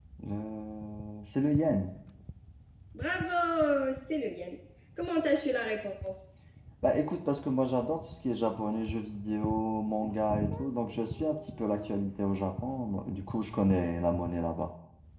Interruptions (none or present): none